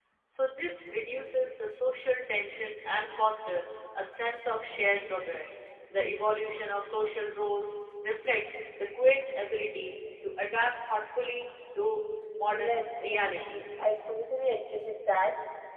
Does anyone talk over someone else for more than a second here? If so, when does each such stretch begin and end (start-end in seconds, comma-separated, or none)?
12.4-13.7